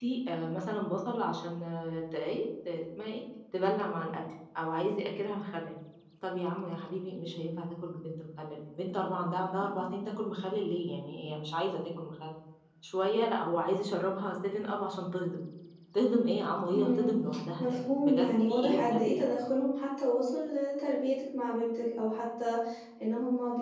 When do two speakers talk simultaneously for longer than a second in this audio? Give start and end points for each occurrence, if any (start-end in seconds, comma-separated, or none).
17.6-19.3